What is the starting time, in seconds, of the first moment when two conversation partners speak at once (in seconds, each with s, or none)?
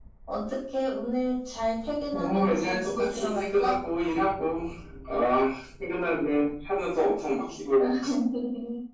2.1 s